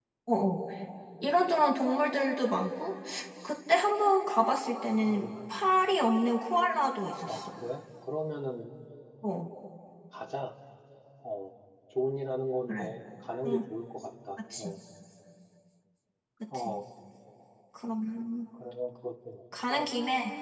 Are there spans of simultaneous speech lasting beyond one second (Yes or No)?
No